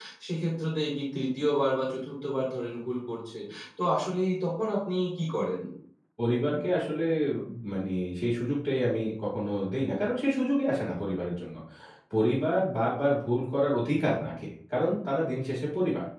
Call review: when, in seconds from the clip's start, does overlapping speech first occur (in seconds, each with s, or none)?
none